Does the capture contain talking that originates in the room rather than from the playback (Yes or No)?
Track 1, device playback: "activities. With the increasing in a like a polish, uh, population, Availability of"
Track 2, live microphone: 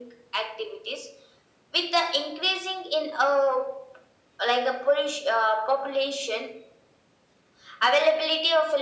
No